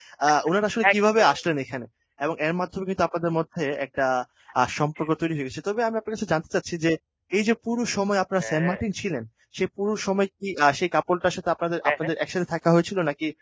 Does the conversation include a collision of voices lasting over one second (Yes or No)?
No